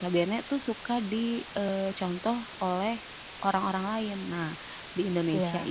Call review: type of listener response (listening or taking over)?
listening